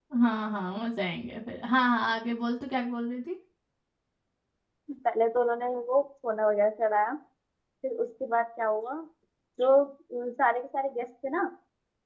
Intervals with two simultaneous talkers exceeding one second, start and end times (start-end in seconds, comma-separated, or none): none